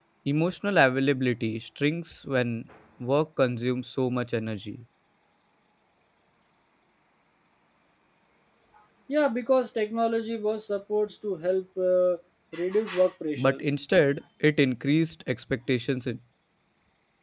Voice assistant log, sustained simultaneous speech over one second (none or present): none